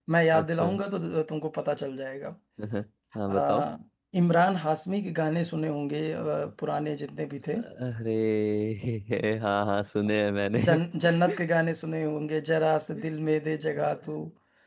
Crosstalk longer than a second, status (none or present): none